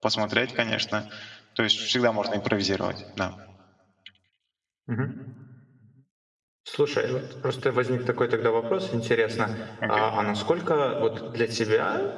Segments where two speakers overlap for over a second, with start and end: none

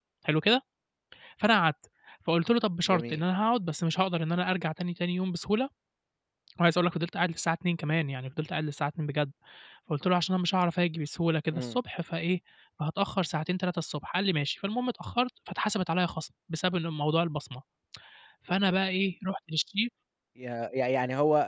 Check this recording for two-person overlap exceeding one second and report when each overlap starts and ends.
none

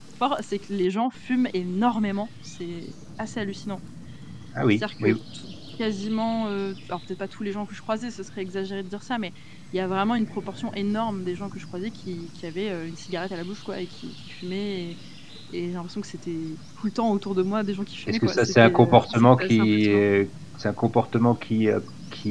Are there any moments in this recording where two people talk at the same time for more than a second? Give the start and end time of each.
18.1-20.0

